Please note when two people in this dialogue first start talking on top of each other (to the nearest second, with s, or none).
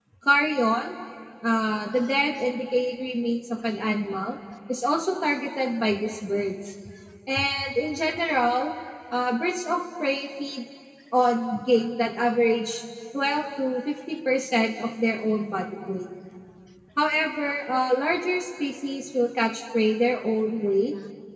none